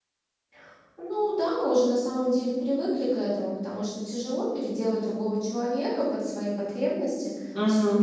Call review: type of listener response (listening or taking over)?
listening